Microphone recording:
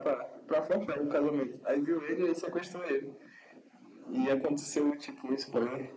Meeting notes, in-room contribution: none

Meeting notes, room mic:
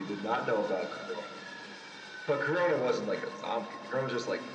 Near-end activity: none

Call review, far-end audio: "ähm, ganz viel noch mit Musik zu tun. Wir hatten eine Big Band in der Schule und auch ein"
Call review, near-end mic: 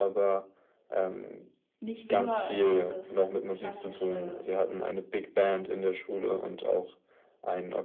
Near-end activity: present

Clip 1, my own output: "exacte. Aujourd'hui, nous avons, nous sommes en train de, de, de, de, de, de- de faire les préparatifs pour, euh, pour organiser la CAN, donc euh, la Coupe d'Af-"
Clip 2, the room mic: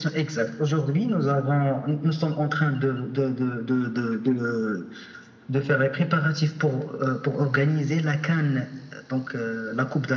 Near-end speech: none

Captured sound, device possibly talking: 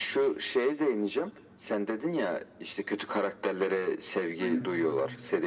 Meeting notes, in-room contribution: present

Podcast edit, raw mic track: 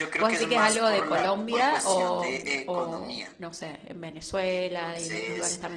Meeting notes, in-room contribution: present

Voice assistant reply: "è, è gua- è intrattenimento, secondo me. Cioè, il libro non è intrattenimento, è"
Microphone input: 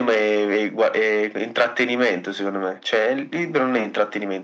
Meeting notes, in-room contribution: none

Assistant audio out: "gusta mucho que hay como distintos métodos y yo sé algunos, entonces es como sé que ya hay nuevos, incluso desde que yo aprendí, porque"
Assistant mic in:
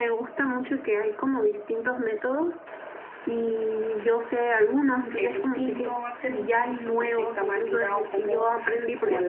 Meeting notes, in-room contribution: present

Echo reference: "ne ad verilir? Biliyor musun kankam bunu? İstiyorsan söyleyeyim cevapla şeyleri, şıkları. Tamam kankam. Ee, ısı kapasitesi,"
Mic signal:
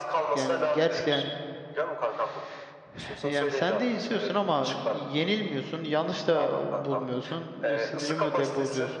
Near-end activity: present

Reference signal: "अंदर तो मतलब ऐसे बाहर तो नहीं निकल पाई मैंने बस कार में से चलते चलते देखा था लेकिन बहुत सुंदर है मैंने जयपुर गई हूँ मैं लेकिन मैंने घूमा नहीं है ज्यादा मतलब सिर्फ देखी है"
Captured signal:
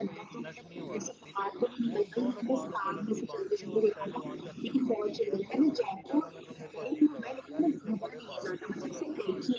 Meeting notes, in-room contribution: present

